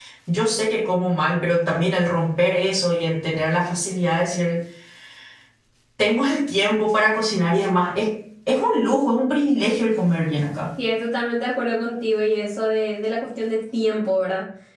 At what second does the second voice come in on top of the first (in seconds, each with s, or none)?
none